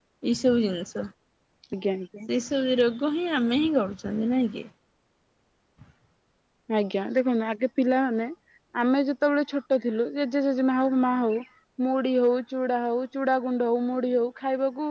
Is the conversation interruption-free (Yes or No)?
Yes